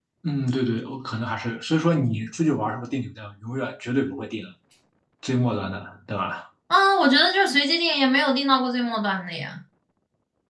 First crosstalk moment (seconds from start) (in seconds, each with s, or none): none